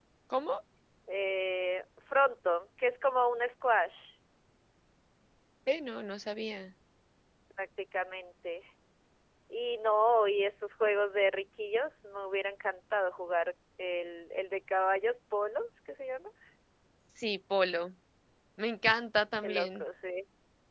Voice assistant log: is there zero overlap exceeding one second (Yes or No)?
Yes